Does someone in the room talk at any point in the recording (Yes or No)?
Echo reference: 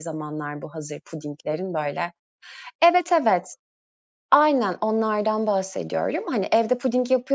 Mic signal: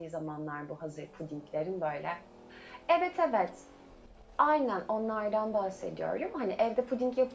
No